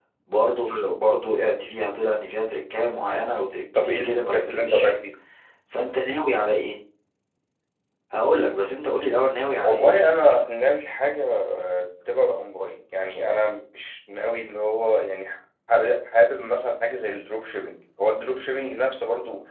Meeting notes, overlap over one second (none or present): present